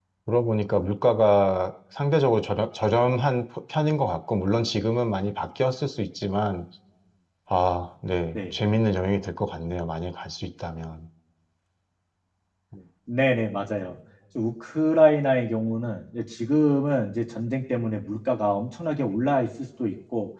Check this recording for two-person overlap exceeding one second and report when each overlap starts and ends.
none

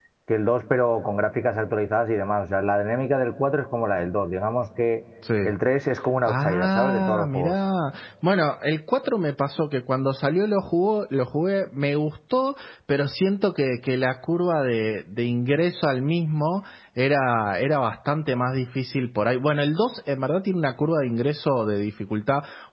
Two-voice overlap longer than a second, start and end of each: 6.3-7.5

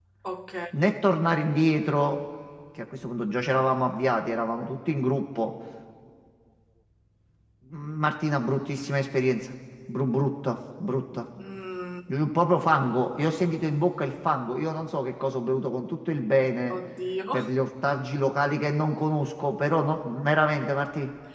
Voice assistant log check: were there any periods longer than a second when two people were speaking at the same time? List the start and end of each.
none

